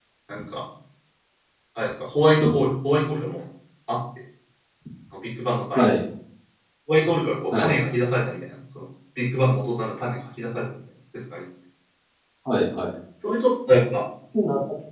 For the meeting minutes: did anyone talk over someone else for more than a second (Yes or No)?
No